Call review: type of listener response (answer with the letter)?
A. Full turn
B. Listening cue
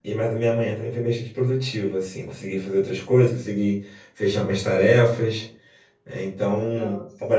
B